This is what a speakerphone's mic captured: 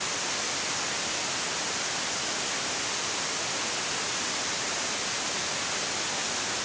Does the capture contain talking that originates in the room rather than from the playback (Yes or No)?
No